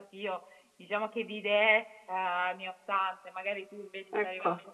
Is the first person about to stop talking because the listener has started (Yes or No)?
No